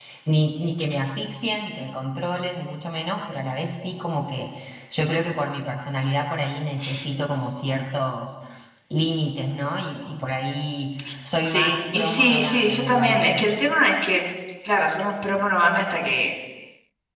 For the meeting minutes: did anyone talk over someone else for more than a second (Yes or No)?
Yes